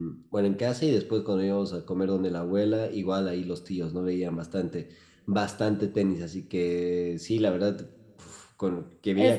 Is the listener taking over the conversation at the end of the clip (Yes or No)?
Yes